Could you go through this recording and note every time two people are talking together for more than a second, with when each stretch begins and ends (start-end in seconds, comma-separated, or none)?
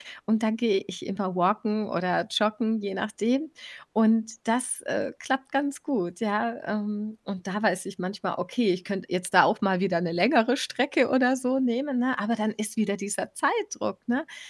none